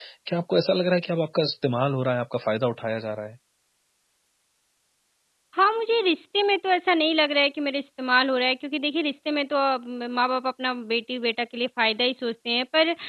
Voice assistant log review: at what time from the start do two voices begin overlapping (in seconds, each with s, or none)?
none